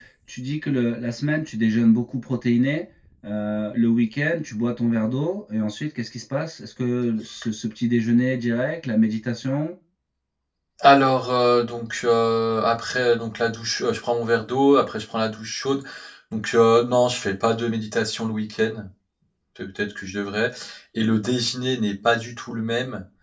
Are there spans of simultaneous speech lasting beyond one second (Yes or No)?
No